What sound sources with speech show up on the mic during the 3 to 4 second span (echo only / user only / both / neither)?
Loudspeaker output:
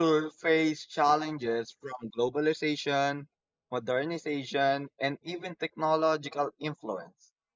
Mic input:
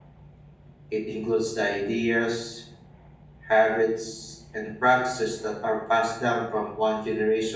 user only